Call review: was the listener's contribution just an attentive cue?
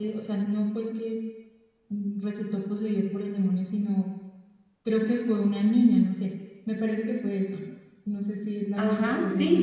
No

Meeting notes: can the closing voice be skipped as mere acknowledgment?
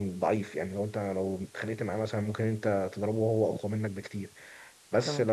Yes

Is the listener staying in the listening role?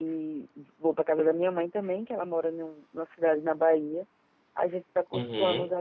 Yes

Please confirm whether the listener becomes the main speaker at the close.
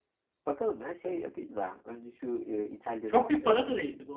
Yes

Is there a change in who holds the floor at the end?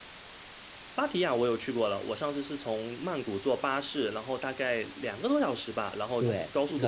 Yes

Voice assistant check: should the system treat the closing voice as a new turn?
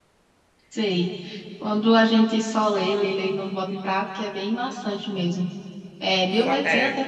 No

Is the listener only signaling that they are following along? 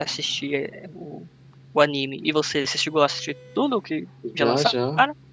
No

